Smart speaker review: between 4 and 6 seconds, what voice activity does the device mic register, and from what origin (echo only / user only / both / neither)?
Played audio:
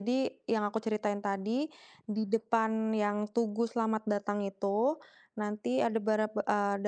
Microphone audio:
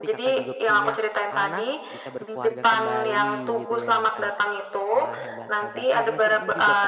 both